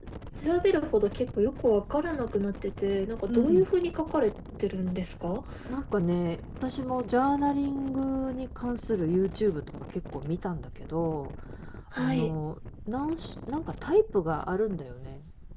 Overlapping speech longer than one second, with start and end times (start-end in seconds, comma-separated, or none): none